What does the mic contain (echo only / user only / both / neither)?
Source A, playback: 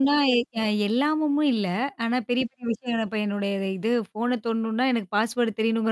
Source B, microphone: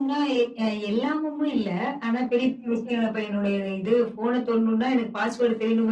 echo only